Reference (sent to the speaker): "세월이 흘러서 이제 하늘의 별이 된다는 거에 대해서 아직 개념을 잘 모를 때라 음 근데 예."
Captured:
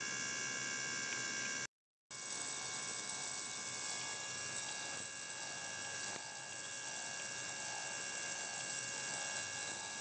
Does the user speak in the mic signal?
No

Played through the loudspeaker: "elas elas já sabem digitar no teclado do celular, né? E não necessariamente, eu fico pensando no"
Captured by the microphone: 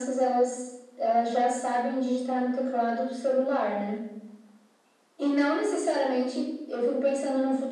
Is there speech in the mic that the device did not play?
No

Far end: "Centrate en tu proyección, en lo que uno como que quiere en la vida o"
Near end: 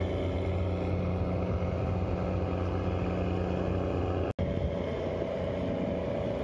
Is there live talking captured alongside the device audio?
No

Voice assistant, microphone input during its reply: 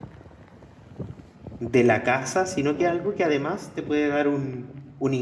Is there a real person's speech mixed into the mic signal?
Yes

